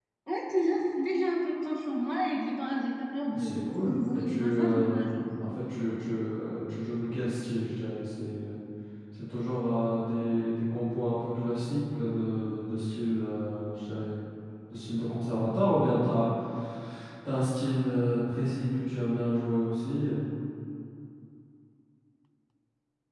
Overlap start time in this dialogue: 3.3 s

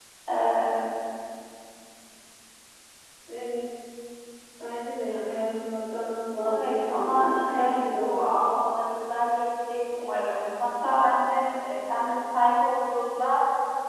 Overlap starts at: 6.4 s

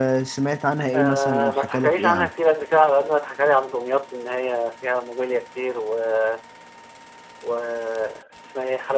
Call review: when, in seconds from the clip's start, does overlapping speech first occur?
0.9 s

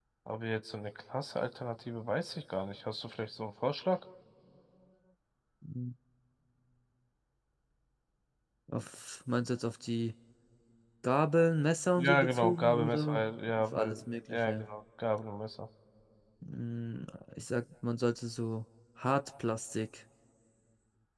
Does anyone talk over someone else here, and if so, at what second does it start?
12.0 s

